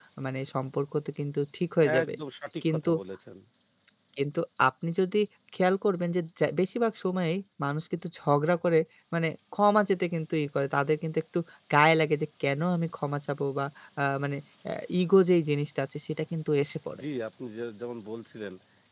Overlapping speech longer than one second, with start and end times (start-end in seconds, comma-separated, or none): none